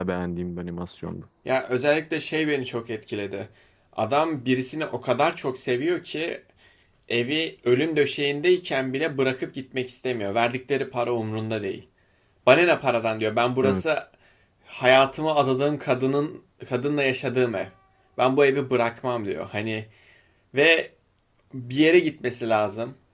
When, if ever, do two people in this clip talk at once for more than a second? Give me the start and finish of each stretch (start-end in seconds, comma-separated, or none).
none